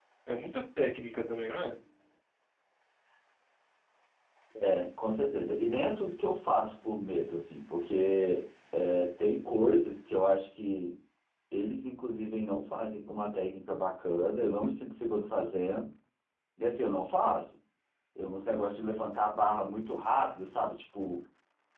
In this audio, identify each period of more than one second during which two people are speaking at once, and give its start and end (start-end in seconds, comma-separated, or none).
none